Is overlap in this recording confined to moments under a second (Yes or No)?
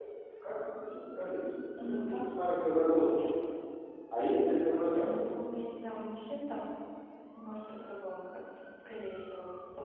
Yes